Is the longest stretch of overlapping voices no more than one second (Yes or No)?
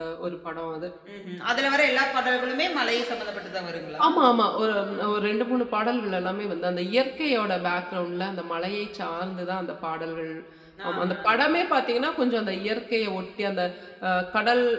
Yes